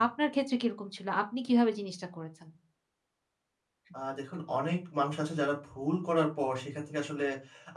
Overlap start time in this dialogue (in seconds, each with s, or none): none